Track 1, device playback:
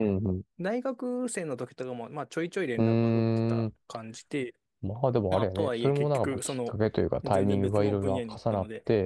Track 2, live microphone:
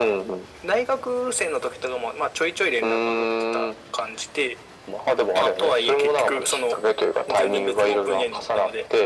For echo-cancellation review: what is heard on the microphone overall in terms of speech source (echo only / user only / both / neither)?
echo only